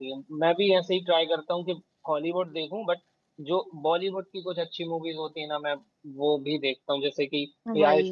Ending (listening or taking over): listening